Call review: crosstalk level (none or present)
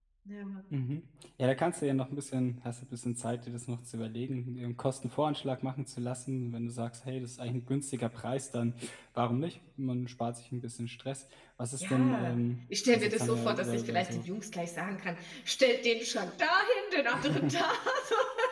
present